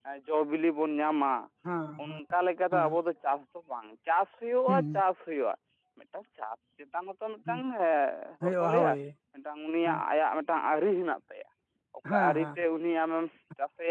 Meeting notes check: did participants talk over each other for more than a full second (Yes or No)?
No